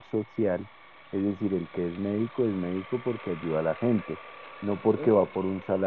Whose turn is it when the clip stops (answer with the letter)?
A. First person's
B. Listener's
A